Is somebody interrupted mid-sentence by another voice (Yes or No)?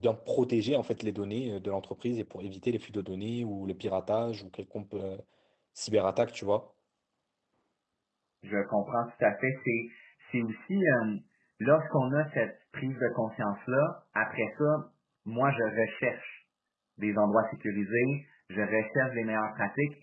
No